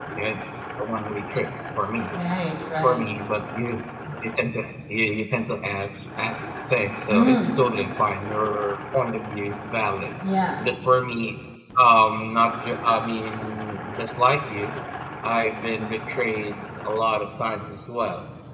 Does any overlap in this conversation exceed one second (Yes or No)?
No